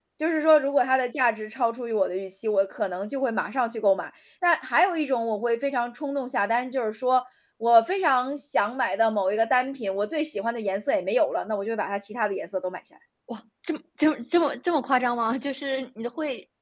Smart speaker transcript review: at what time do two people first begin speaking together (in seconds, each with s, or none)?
none